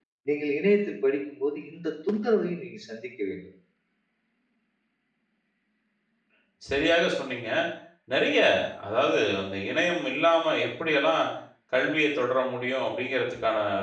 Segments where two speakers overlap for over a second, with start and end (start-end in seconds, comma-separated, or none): none